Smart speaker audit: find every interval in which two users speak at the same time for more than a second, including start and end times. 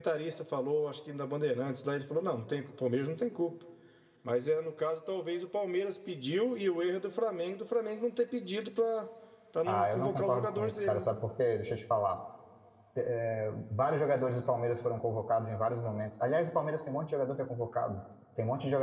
9.7-11.1

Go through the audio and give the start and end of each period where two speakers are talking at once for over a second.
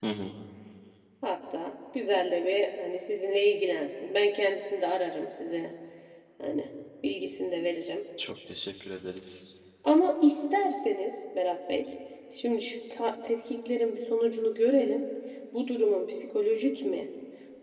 none

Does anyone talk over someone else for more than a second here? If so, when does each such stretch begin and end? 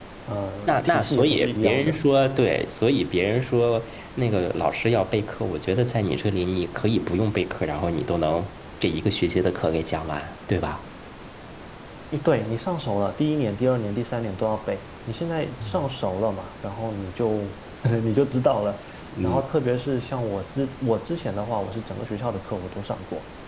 0.7-2.0

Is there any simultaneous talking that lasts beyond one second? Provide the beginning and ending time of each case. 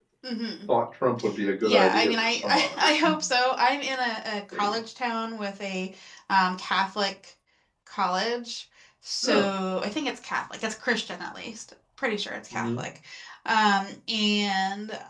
1.6-3.1

